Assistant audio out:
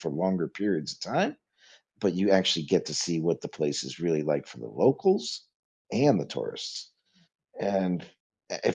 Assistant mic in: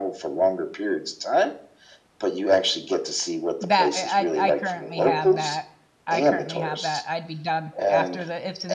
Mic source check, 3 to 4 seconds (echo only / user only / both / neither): both